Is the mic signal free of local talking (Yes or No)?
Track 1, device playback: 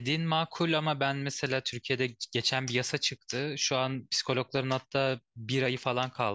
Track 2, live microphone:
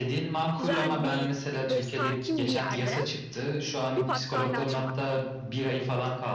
No